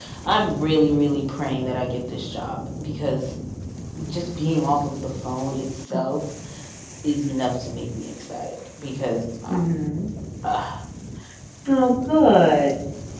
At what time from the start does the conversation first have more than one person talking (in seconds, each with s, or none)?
none